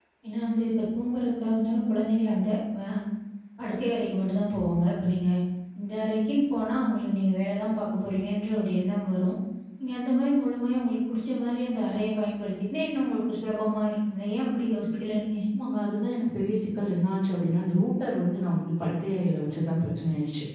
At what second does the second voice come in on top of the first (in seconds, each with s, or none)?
none